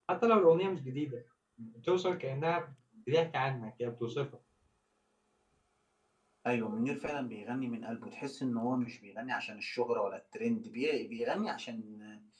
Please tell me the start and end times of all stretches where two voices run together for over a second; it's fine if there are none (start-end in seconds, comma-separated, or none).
none